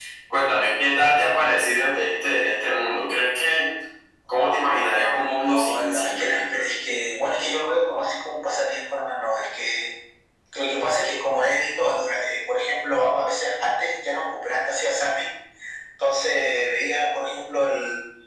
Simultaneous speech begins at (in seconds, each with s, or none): 5.4 s